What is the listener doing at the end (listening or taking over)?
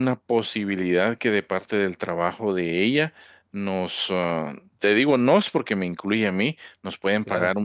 listening